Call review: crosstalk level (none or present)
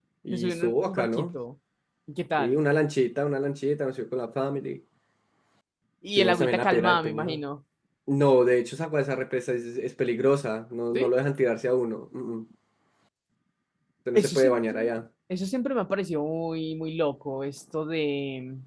present